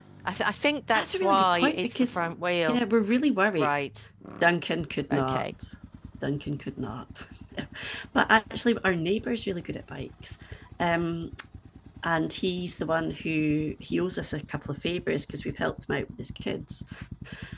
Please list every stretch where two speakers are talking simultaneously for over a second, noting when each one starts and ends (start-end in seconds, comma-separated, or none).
0.9-2.2